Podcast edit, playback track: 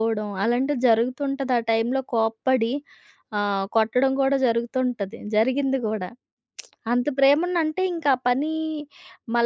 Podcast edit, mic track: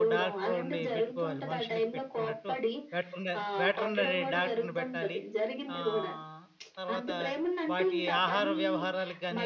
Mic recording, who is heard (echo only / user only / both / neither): both